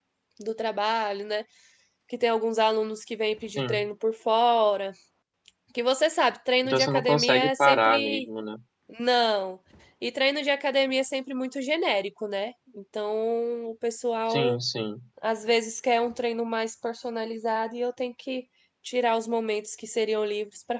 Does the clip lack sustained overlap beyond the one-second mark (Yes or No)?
No